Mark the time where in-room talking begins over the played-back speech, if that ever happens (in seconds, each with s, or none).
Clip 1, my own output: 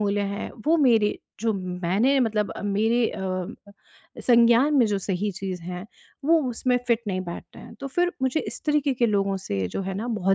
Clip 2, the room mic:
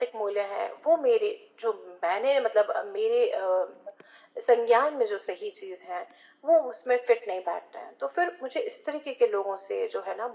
none